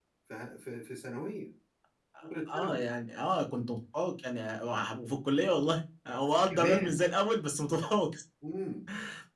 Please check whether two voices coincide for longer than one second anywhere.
No

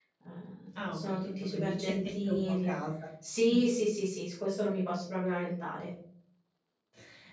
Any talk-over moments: Yes, from 0.8 s

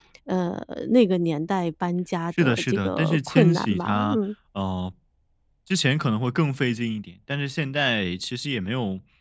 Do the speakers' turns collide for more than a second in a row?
Yes, from 2.4 s

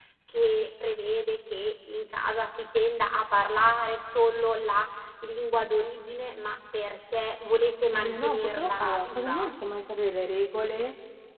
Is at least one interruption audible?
Yes, from 7.9 s

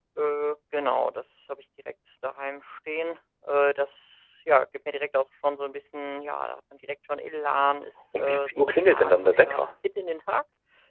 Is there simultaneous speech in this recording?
Yes, from 8.1 s

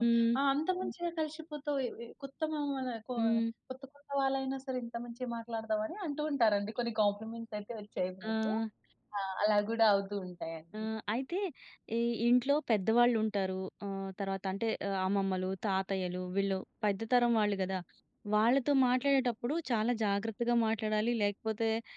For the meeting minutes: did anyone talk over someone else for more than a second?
No

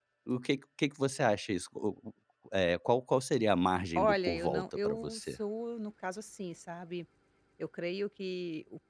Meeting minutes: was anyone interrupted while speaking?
Yes, from 4.0 s

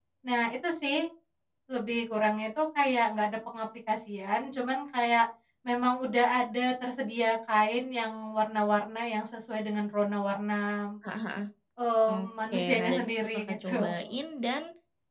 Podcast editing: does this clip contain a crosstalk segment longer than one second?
Yes, from 12.1 s

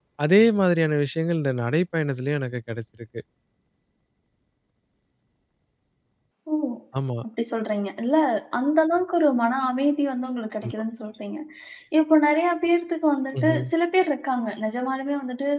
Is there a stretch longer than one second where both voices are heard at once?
No

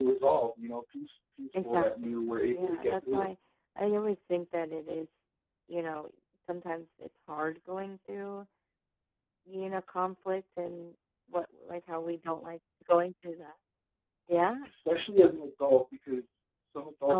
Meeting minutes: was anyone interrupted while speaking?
Yes, from 1.5 s

